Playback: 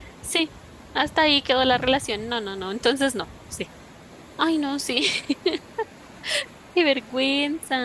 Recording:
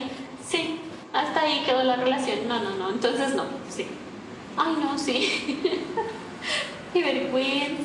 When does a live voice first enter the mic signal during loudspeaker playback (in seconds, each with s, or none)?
none